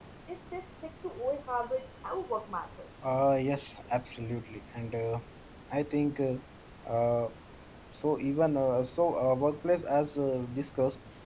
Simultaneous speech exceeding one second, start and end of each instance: none

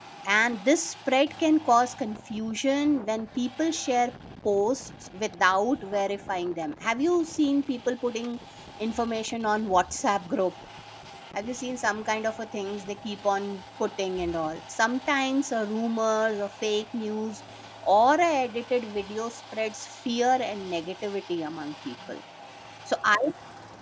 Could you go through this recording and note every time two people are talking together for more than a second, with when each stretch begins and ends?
none

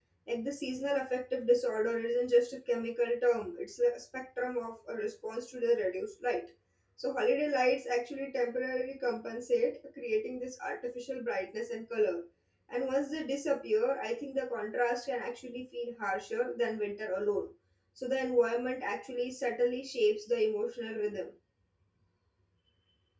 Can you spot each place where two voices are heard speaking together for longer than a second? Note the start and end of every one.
none

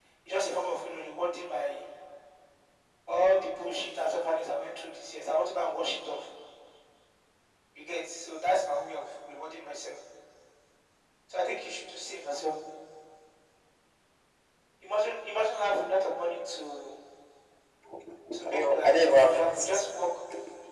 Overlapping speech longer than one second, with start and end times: 18.3-19.8

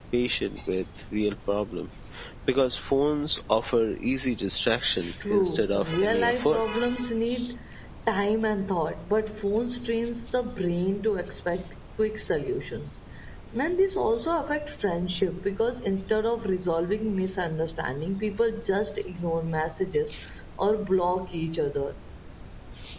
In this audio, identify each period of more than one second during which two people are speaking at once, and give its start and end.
5.3-6.6

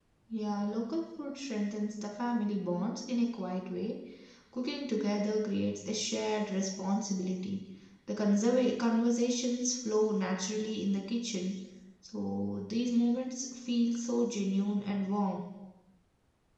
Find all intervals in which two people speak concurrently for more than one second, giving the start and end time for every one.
none

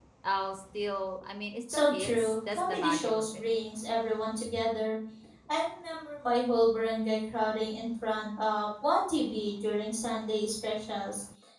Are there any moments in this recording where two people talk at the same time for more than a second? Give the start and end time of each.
1.7-3.4

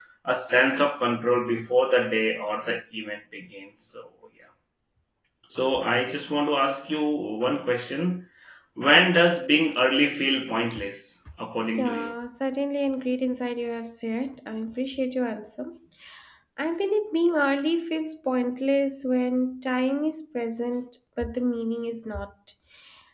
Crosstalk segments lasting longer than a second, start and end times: none

